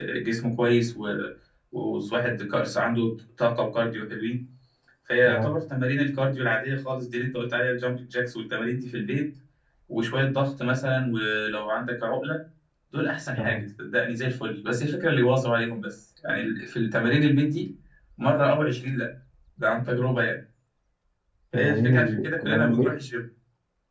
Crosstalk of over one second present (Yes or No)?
Yes